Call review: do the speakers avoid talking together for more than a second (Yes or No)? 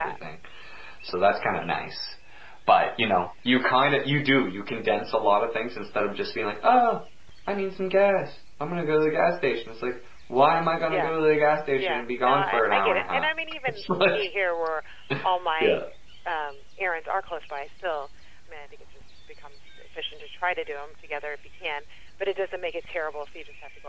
No